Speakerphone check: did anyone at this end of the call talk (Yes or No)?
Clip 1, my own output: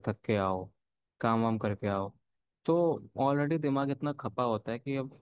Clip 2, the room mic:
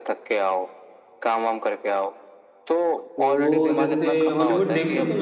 Yes